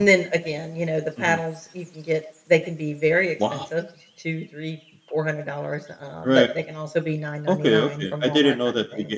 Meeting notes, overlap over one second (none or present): present